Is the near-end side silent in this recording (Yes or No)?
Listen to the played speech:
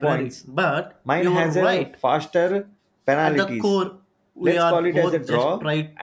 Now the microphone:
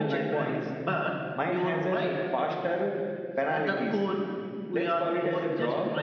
Yes